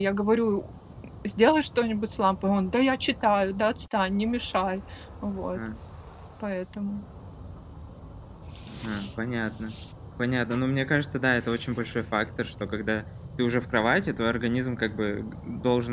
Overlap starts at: none

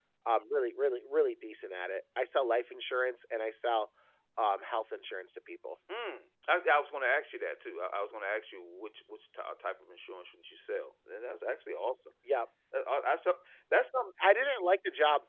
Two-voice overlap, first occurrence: none

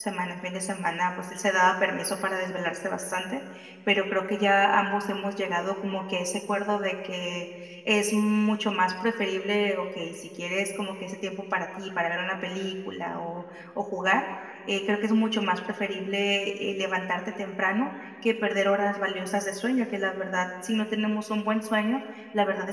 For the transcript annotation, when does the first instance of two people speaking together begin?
none

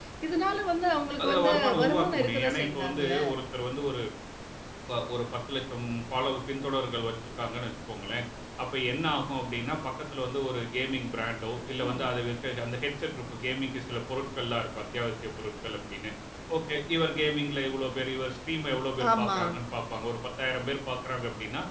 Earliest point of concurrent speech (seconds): 1.2 s

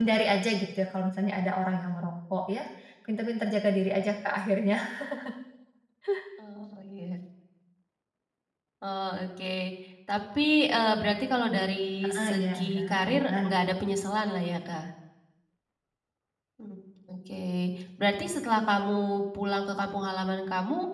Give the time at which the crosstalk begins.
12.2 s

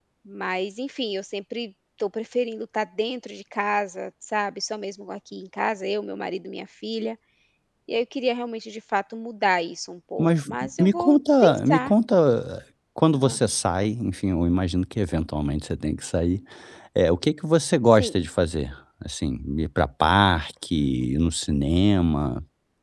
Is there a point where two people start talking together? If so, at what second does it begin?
10.2 s

